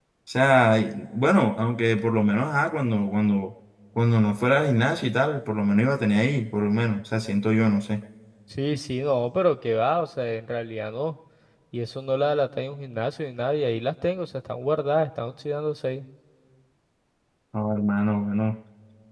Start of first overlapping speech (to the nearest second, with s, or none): none